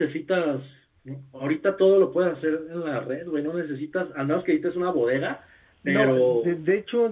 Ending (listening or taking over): taking over